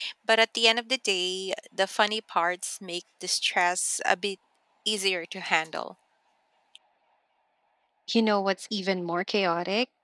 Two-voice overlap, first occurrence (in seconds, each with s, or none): none